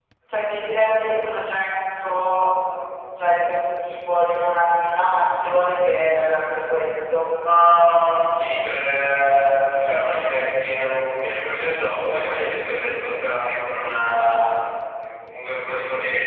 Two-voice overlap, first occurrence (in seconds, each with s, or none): none